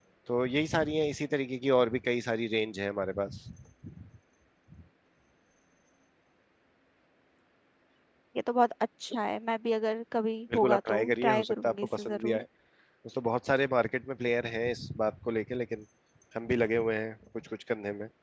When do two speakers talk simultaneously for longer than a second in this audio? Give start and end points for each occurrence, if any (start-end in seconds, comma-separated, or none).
10.5-12.4